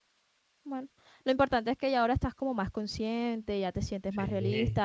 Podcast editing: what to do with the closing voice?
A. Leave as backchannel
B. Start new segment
A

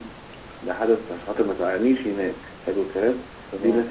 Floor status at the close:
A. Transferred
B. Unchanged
B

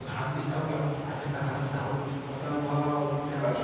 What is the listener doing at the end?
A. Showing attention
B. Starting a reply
A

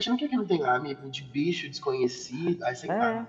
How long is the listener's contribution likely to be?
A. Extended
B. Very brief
A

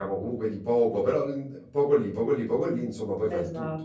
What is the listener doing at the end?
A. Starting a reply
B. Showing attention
A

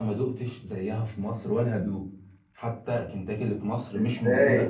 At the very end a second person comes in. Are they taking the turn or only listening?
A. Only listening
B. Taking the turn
B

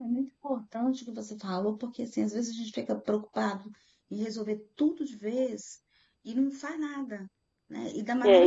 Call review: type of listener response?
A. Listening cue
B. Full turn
A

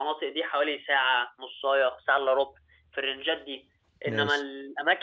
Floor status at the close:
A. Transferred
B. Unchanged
B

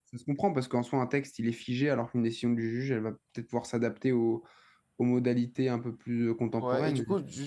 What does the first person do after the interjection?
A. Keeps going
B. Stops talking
B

